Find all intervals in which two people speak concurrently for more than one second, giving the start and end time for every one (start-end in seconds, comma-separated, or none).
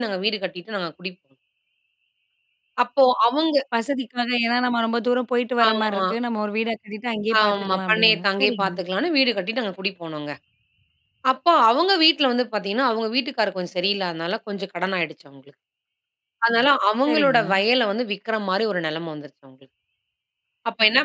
7.4-8.8